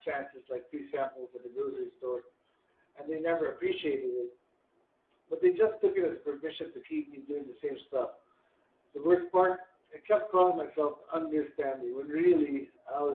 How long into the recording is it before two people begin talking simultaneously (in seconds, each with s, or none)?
none